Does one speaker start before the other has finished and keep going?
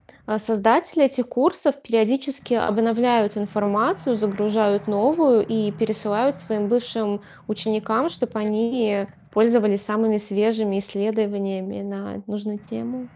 No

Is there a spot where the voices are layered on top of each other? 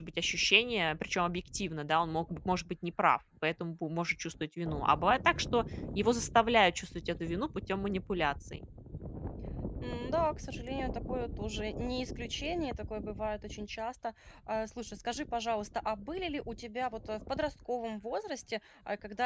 No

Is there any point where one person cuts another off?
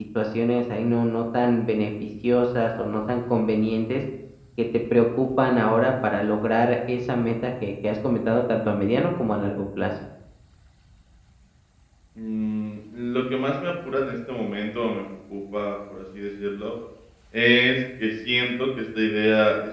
No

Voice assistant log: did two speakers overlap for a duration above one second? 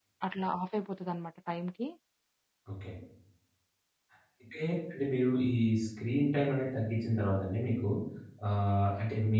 No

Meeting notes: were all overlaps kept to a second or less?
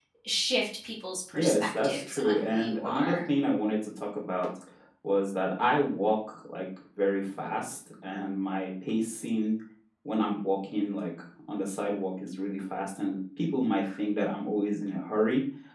No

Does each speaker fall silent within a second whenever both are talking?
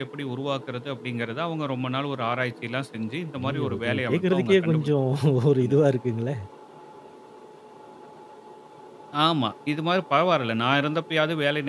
No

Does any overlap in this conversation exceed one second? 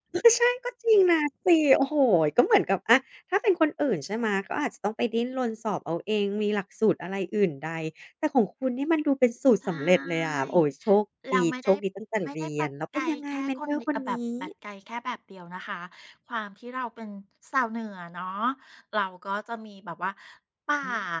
Yes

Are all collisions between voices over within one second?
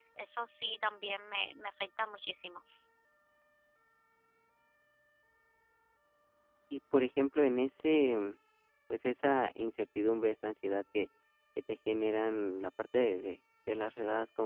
Yes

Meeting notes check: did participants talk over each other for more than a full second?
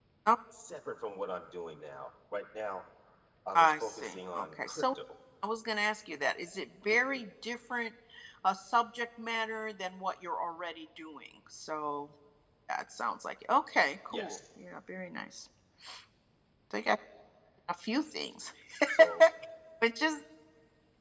Yes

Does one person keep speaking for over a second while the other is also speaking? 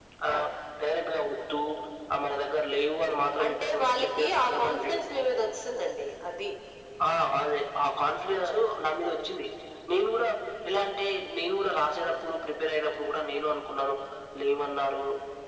Yes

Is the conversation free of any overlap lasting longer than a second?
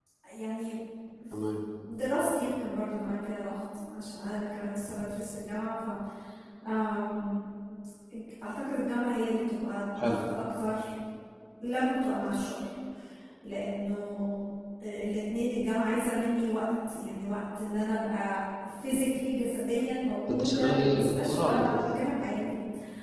No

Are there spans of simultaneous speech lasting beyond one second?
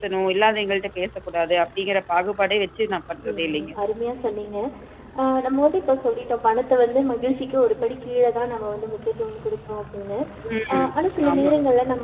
No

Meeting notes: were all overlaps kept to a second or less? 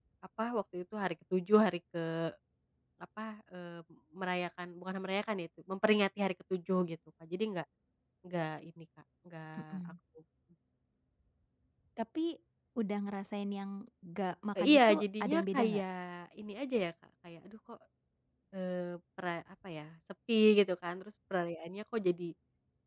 No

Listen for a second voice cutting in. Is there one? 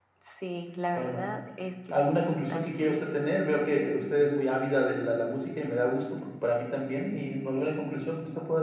Yes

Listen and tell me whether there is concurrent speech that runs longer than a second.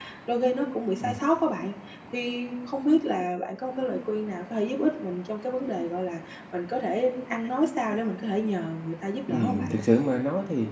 No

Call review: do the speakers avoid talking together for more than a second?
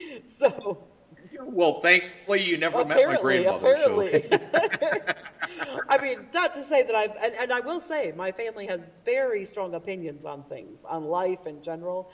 No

